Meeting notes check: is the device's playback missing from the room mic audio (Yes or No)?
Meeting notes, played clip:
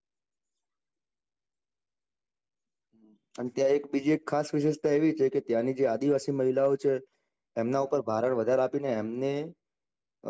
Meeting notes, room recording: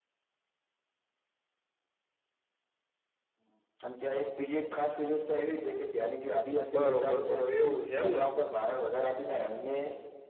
No